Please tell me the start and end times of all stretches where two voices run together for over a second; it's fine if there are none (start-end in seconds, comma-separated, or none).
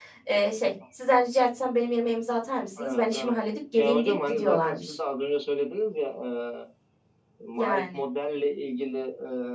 3.8-5.0